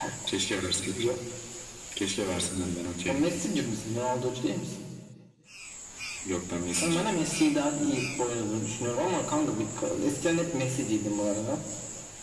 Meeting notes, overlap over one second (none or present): none